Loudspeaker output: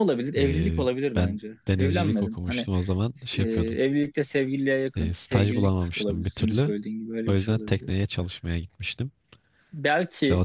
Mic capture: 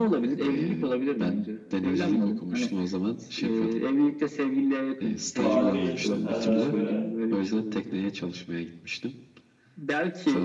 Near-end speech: present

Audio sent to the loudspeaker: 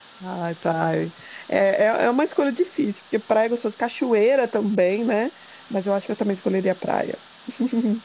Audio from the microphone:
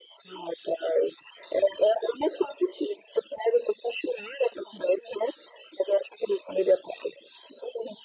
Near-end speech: none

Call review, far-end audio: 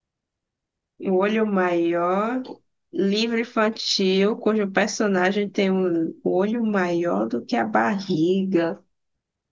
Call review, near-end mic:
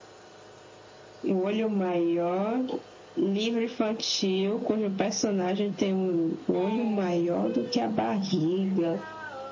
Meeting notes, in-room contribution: present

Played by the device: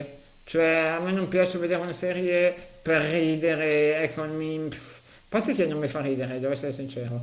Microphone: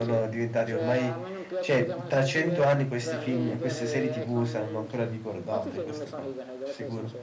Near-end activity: present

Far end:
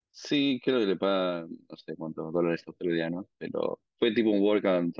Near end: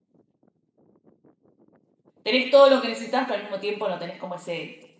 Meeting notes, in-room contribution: present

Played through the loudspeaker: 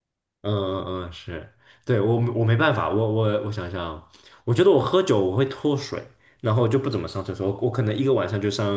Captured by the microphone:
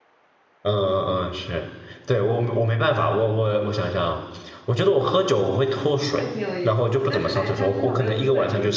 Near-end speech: present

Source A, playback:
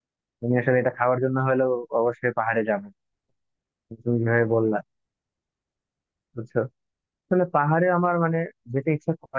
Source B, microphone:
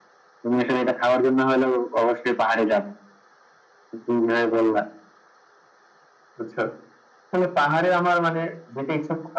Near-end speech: none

